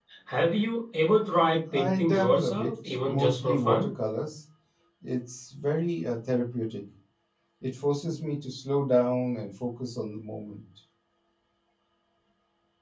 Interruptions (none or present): present